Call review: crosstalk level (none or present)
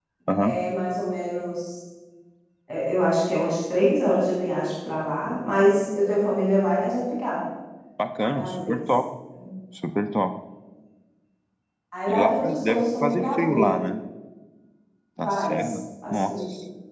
present